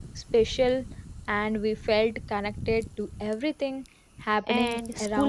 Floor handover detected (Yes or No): Yes